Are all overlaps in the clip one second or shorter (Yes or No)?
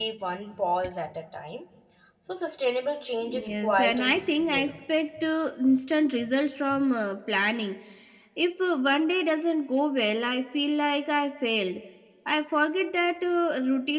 No